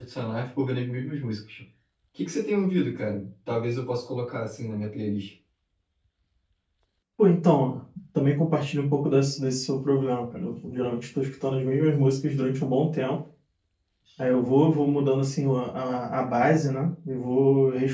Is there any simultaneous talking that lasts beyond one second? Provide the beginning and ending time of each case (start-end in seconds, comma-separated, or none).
none